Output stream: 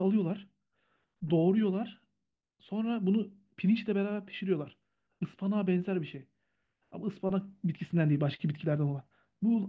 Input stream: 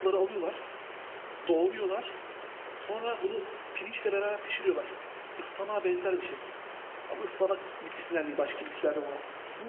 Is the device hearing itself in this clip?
Yes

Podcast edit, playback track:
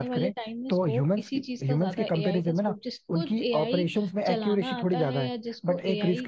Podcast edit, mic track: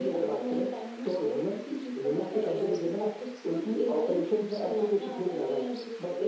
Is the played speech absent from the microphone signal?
No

